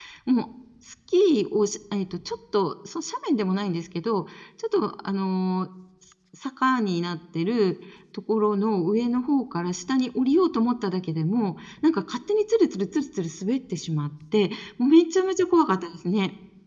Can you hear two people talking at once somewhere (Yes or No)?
No